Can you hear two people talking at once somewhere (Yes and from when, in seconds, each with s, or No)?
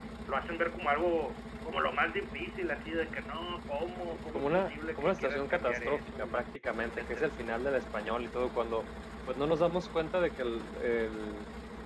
Yes, from 4.3 s